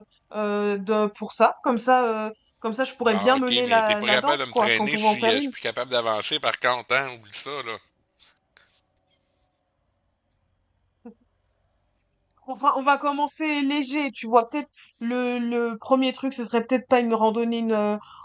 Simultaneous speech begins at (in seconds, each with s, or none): 3.1 s